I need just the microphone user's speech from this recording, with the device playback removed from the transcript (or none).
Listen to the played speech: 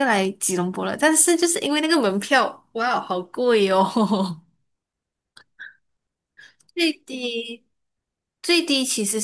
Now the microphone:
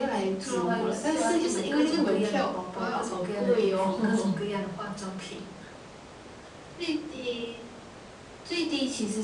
除了环游世界，我还可以买各种各样的包包、各种各样的衣服、各种各样的化妆品。